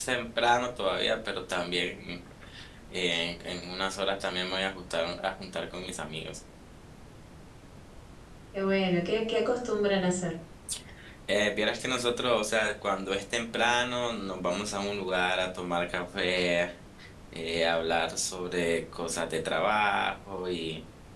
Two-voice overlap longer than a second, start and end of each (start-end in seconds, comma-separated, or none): none